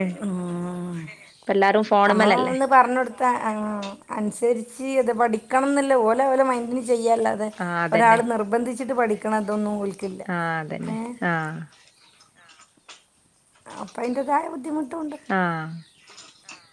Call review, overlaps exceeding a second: none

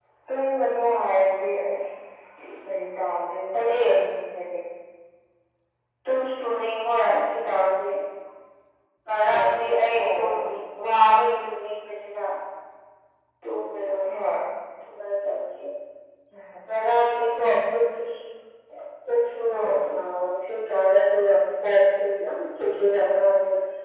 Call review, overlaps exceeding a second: none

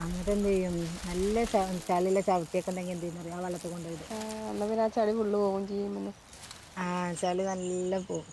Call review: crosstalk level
none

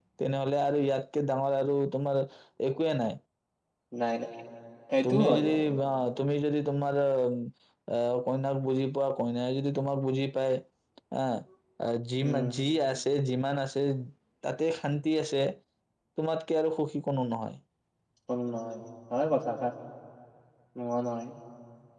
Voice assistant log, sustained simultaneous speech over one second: none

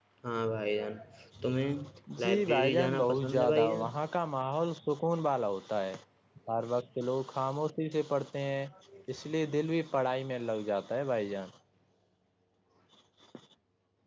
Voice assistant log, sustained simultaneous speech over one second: present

